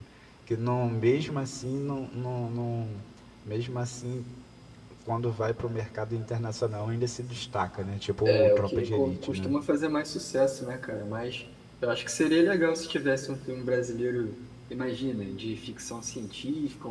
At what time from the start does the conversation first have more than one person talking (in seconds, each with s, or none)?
8.2 s